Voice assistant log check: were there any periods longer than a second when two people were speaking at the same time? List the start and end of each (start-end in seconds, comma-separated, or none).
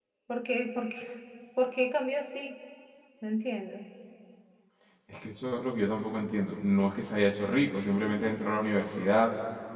none